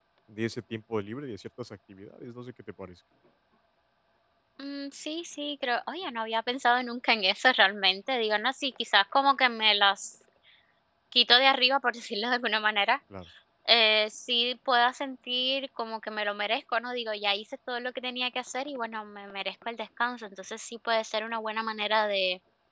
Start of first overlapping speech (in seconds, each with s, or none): none